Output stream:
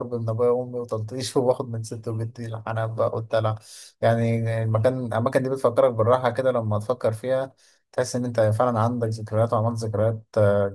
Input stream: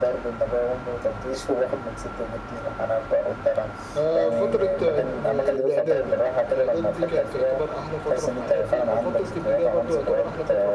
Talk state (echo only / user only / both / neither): both